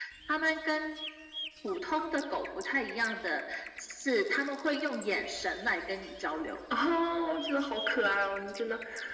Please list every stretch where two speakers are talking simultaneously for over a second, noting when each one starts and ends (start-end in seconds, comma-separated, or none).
none